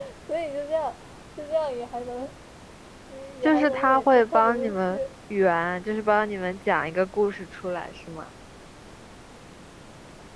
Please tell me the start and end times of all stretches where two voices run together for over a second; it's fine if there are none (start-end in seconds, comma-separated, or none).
3.4-5.0